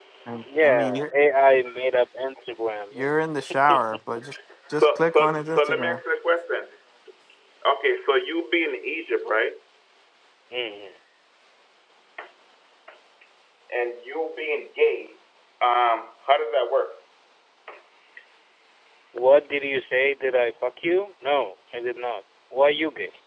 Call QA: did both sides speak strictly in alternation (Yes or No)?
No